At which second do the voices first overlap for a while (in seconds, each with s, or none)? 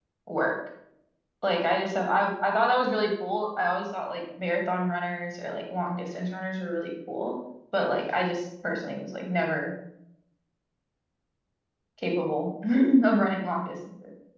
none